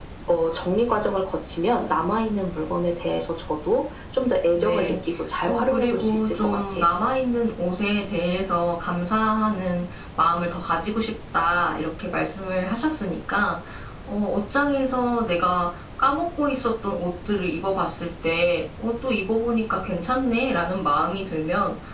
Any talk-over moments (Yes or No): Yes